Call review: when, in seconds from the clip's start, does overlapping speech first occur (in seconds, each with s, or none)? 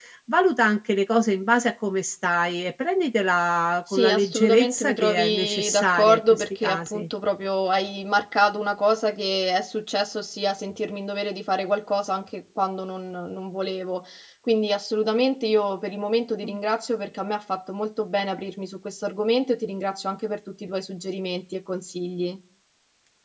3.9 s